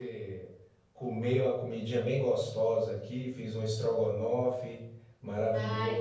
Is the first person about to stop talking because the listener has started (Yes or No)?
No